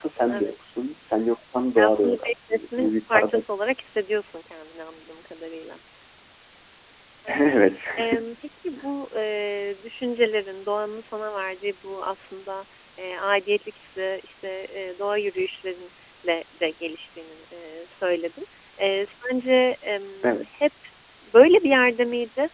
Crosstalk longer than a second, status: present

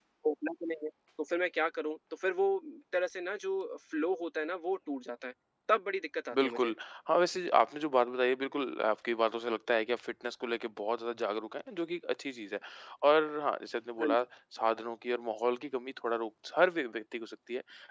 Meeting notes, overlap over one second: none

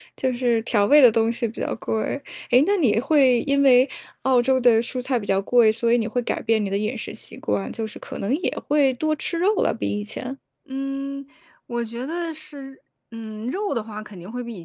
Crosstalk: none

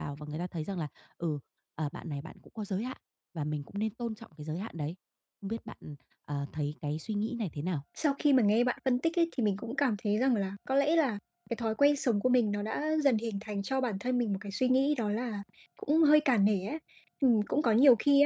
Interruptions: none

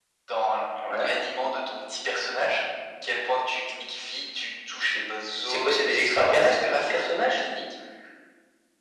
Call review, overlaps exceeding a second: present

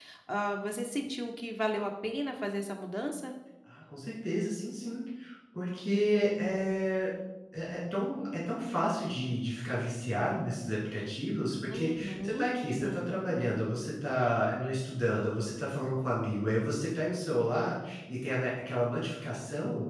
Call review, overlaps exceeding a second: present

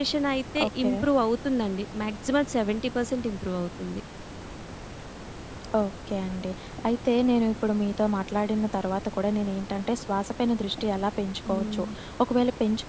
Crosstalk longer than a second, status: none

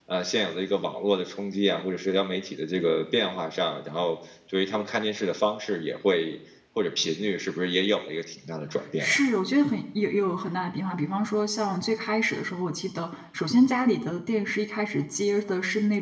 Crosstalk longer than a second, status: none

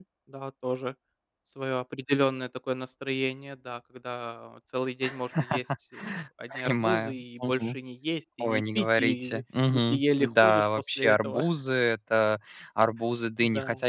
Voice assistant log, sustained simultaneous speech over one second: present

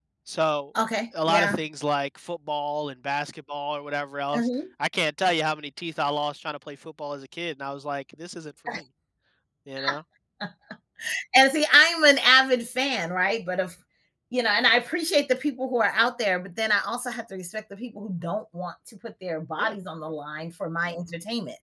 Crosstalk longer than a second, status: none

